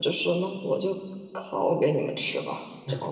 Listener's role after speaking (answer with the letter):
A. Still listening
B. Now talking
B